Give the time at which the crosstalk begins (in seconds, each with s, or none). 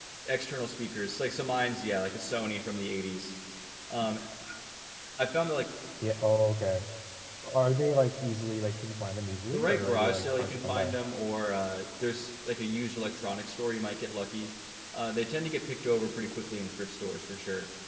9.5 s